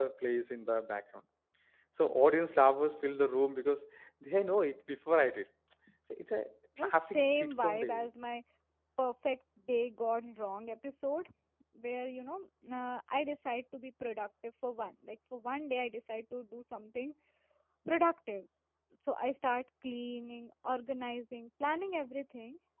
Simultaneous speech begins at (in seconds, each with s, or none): 6.8 s